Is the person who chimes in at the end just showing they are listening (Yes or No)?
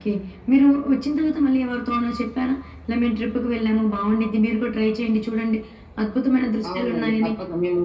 No